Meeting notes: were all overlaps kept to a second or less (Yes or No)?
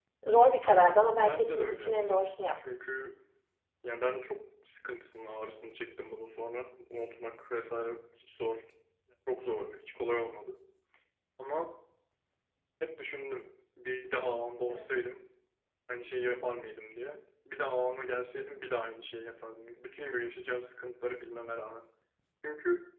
No